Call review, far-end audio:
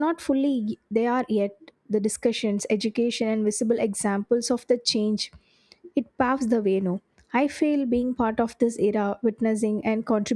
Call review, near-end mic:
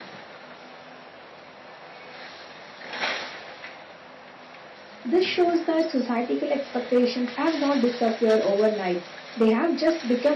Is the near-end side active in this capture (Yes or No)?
Yes